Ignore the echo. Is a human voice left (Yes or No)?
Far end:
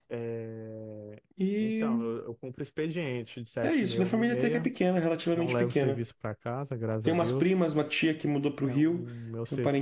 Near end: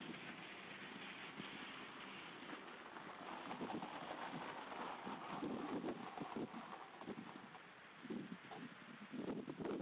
No